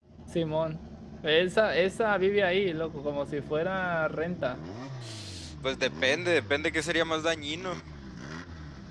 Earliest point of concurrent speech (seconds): none

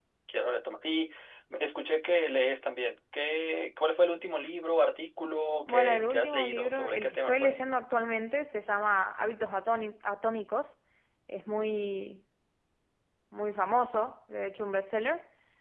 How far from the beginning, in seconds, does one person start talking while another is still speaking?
5.7 s

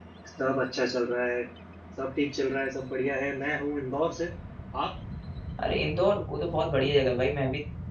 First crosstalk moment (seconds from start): none

